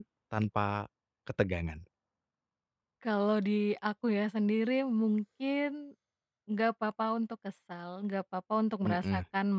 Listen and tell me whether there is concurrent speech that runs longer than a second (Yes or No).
No